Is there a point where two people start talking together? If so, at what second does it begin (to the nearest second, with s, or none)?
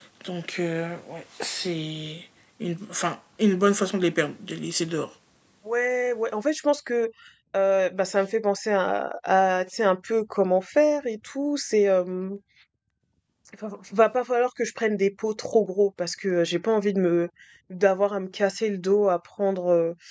none